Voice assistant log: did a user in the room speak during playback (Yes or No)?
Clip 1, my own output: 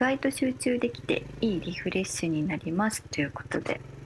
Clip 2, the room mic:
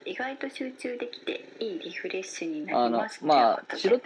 Yes